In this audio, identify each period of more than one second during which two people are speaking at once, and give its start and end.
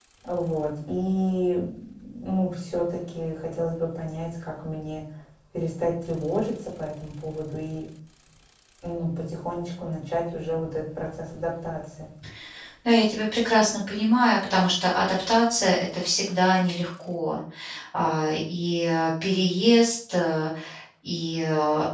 none

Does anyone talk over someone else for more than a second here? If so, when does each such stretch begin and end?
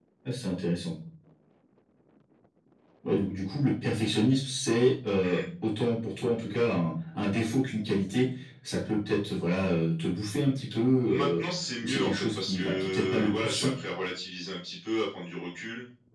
11.8-13.7

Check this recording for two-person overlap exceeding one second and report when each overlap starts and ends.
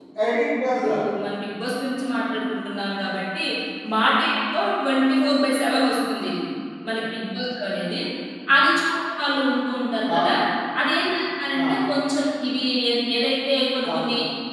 none

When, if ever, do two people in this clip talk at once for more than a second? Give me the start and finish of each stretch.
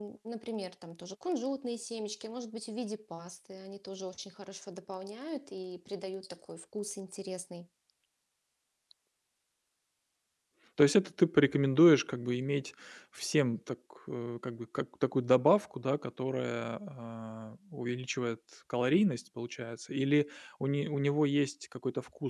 none

